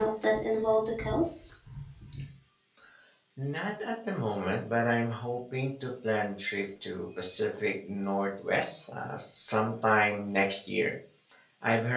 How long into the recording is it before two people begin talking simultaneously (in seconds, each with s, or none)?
none